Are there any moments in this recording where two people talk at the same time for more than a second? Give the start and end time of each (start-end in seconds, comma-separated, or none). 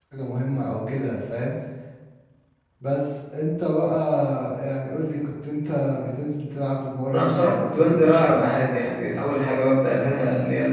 7.1-8.9